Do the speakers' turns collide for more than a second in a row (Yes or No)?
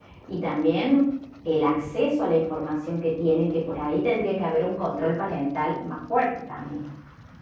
No